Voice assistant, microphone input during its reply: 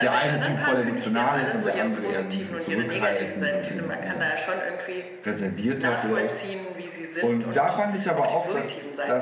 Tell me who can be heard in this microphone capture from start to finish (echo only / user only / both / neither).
both